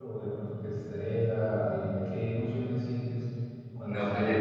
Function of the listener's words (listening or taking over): taking over